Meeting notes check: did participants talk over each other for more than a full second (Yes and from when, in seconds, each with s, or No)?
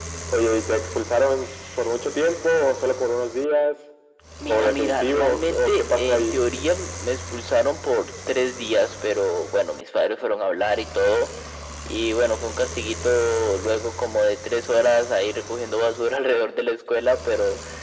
Yes, from 4.5 s